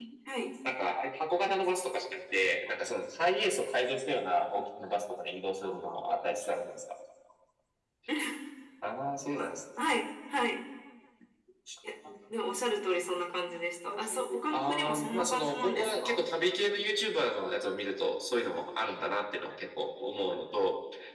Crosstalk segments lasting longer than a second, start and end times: 14.5-16.2

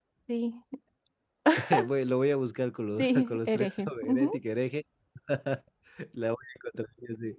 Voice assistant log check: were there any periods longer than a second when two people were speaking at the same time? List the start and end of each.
3.0-4.4

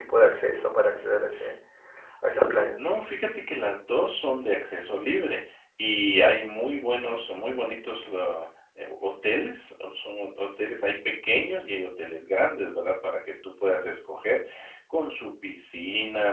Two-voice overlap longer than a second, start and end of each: none

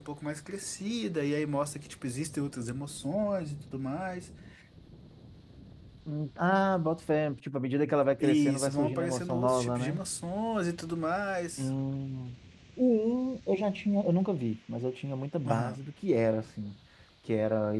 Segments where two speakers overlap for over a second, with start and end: 8.2-10.0

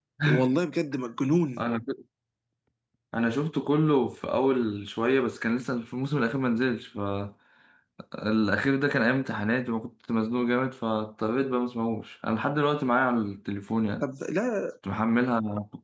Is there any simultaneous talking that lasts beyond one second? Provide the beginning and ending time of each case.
none

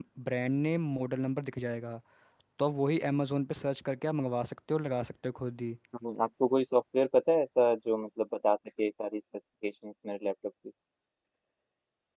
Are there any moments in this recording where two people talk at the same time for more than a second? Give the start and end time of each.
none

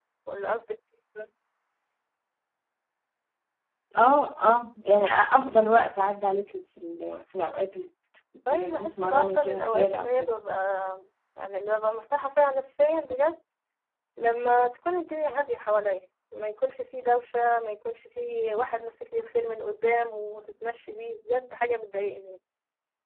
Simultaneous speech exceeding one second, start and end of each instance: 8.5-10.3

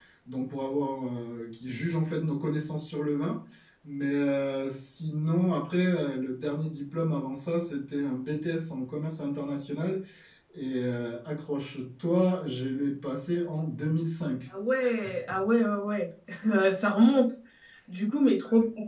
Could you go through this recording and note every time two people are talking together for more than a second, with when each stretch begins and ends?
none

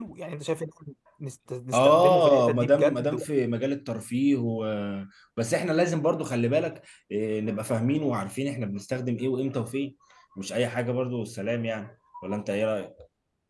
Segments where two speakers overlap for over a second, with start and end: 1.7-3.2

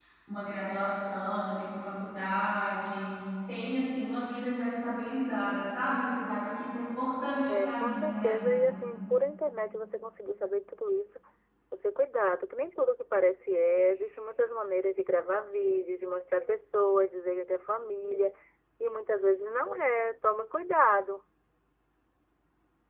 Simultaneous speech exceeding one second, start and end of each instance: 7.5-8.8

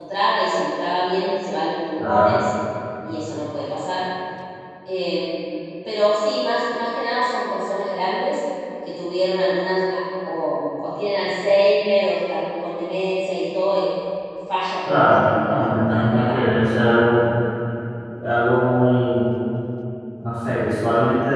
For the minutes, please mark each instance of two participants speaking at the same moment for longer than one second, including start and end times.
14.9-16.4

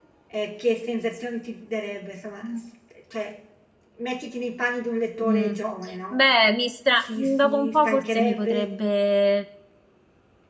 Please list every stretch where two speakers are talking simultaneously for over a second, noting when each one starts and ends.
7.0-8.7

